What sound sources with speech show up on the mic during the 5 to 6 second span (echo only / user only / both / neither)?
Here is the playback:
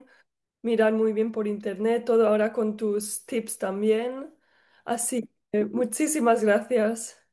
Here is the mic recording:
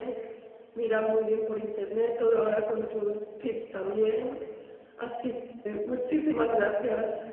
echo only